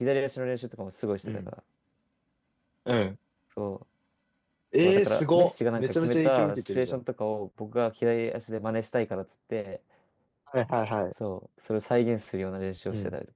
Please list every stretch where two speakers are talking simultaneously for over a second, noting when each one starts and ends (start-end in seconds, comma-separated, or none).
4.8-7.0